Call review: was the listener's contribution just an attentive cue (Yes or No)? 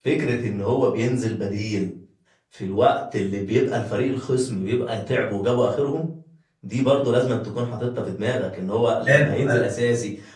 Yes